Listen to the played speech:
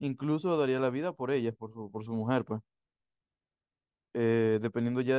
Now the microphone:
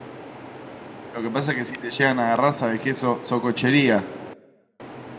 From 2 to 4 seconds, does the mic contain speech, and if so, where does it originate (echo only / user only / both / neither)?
user only